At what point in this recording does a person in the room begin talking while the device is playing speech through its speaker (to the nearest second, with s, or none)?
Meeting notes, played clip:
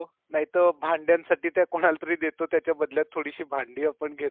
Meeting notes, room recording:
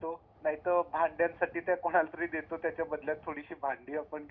none